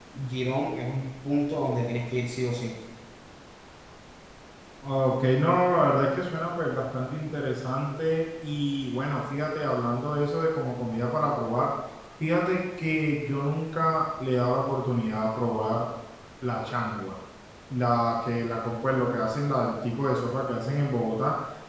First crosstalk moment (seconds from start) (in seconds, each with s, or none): none